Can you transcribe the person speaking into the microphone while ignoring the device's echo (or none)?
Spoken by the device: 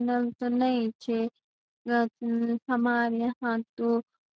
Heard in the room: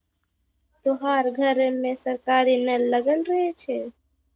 तो हर घर मे सरकारी नल लगल रहे छै